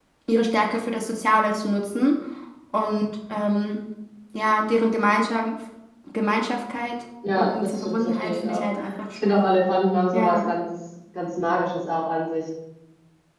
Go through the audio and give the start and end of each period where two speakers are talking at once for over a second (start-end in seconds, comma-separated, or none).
7.3-8.7